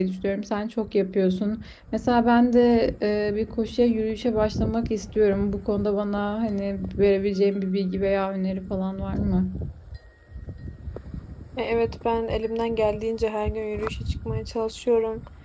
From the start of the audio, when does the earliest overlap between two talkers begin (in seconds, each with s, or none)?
none